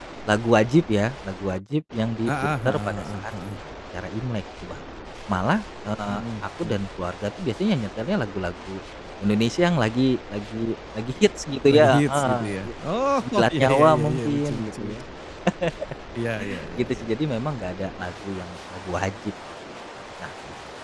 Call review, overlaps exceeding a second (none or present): present